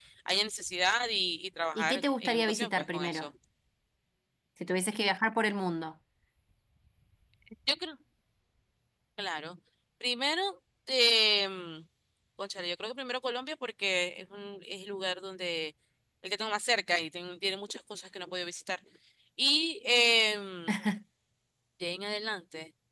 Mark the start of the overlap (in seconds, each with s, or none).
1.8 s